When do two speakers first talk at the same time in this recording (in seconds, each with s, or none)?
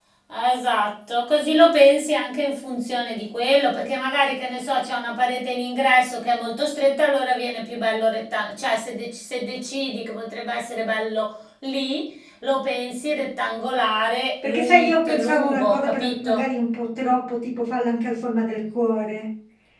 14.4 s